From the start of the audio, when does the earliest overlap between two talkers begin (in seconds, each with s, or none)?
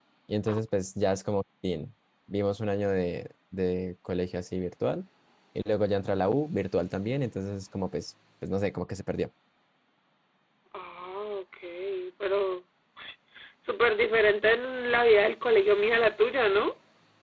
none